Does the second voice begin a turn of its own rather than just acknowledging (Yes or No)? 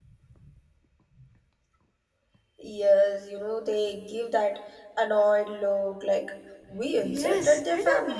Yes